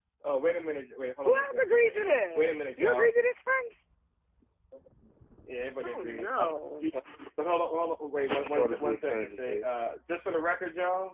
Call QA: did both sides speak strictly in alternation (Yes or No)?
No